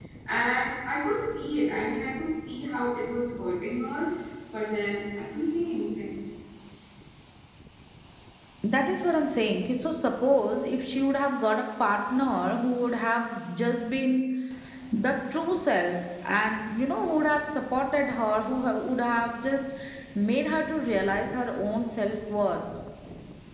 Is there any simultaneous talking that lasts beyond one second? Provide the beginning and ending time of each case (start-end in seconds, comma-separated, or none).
none